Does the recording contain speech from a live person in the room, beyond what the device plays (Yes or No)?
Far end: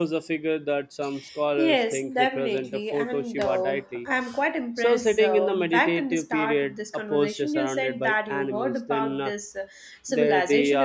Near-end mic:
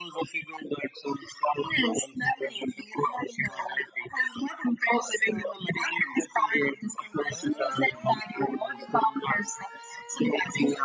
No